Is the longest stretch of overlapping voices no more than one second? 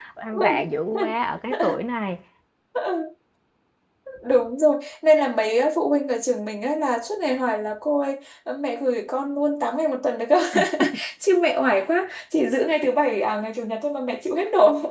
Yes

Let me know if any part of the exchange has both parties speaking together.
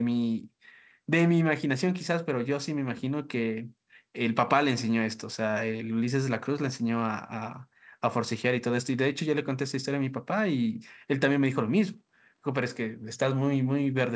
No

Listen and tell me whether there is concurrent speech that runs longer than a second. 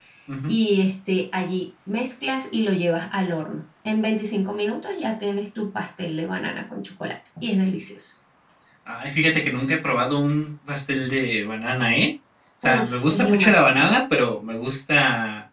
Yes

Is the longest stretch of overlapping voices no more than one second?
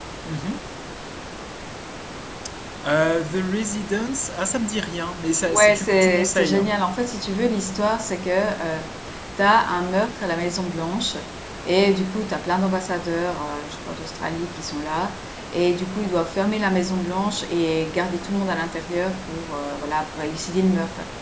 No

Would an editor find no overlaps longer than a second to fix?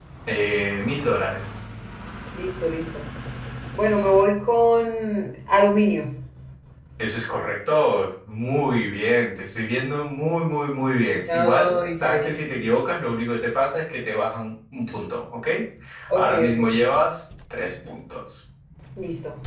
No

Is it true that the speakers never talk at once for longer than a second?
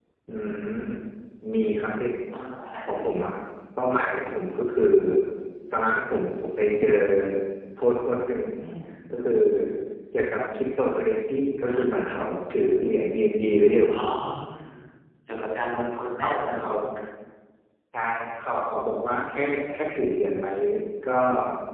Yes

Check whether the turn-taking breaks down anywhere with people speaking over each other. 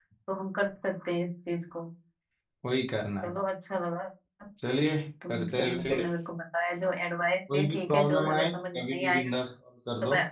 Yes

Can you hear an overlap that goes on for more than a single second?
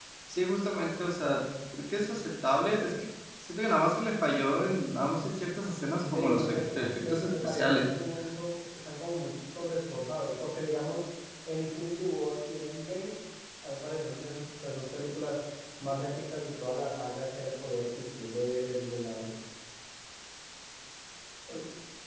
Yes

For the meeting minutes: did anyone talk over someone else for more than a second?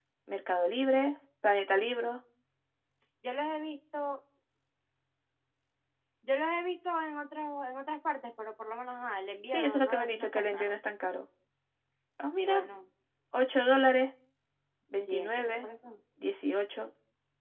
Yes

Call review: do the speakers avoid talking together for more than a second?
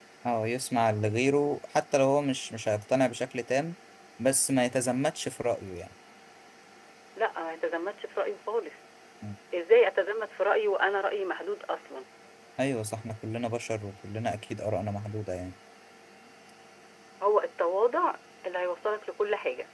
Yes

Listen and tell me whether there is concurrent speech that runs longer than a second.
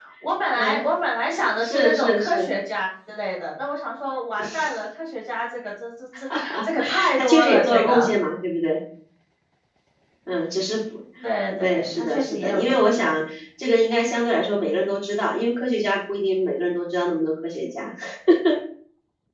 Yes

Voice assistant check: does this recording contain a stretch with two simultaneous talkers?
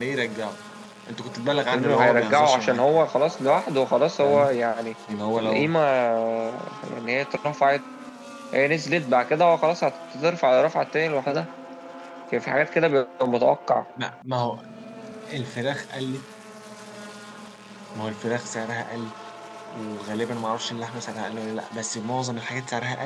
Yes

